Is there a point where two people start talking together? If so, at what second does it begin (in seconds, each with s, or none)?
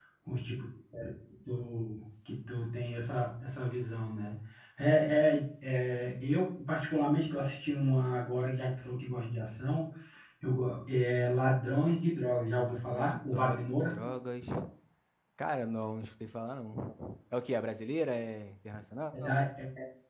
12.7 s